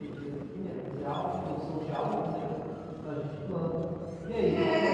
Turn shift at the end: Yes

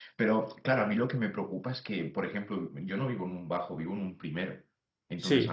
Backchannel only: Yes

